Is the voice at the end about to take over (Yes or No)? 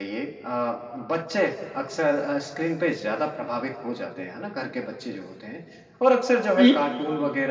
No